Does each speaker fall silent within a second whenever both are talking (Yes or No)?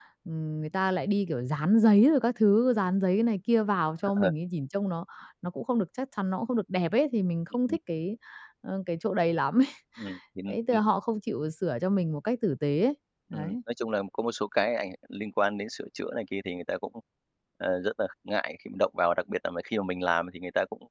Yes